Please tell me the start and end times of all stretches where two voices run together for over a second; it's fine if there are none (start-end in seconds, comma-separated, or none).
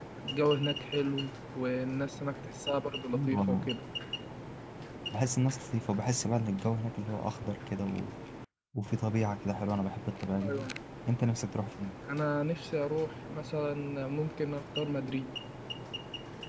none